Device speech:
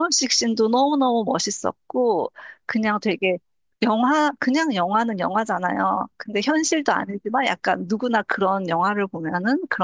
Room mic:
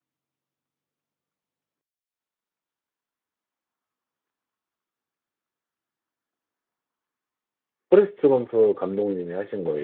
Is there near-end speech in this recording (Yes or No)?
Yes